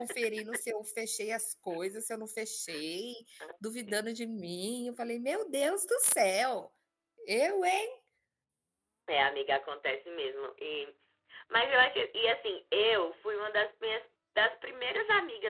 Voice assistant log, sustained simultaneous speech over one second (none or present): none